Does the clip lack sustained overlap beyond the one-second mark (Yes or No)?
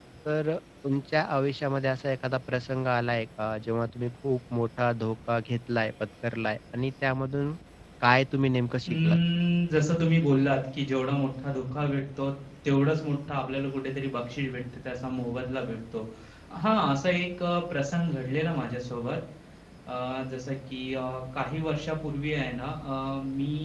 Yes